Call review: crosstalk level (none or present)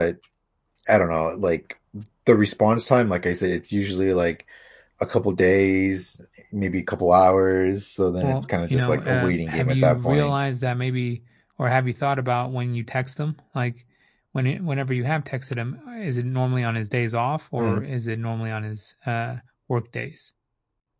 present